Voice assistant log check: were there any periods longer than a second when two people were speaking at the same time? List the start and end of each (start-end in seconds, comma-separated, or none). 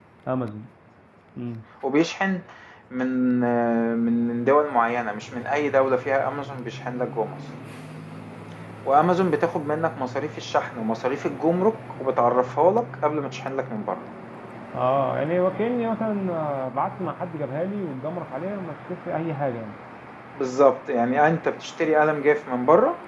none